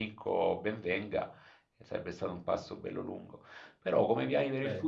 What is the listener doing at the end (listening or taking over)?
listening